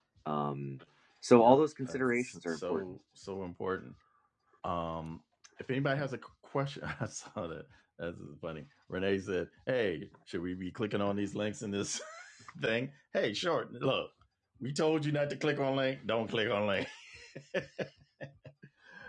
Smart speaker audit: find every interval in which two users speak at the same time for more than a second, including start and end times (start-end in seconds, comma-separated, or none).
1.3-2.8